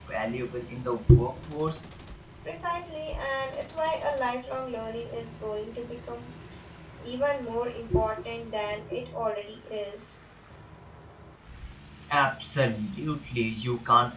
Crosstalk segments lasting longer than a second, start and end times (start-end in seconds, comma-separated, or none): none